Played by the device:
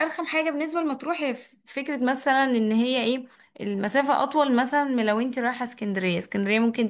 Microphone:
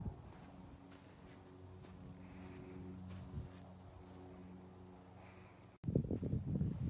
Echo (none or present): none